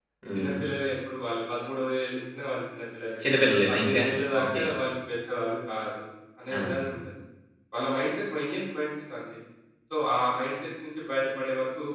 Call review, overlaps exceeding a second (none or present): none